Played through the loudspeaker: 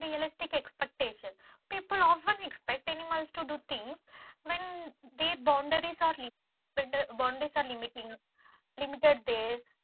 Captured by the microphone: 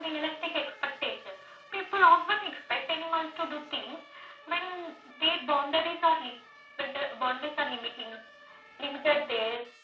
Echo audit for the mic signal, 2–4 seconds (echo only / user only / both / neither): echo only